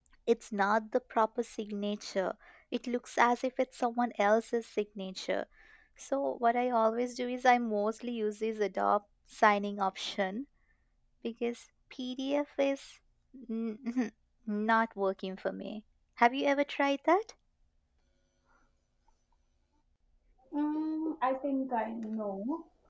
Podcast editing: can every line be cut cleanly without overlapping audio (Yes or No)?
Yes